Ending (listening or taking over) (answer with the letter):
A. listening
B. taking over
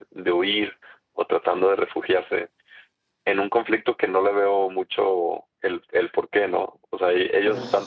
A